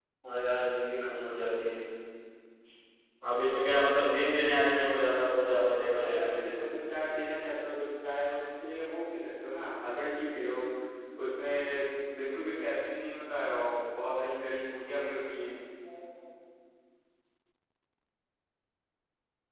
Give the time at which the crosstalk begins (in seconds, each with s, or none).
5.4 s